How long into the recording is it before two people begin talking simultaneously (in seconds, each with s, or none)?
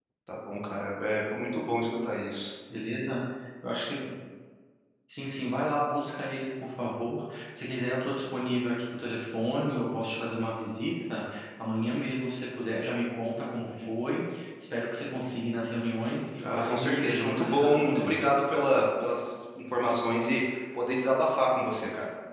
16.4 s